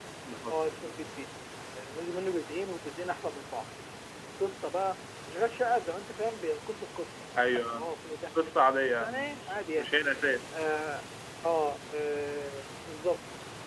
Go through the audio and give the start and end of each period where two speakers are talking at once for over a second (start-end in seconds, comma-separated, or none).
8.5-9.8